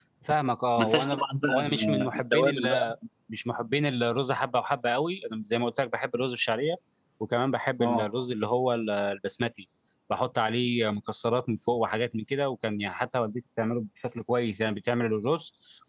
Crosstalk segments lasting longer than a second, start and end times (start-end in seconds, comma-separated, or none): 0.8-2.9